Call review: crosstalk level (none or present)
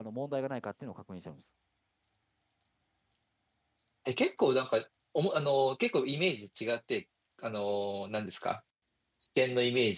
none